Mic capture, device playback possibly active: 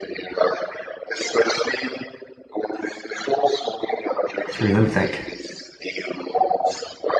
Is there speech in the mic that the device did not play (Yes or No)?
Yes